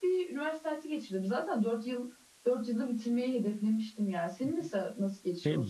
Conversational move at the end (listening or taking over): taking over